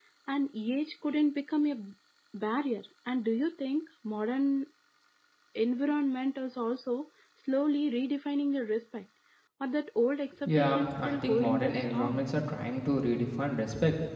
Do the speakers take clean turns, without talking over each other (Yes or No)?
No